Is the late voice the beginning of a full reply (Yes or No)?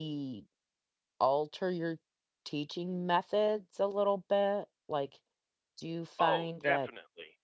Yes